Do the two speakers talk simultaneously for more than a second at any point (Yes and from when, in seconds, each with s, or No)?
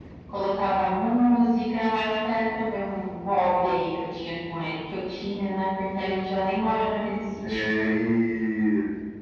No